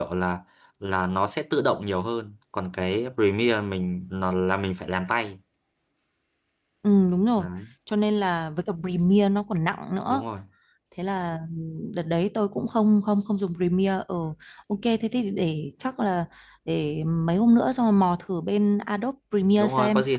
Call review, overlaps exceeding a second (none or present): none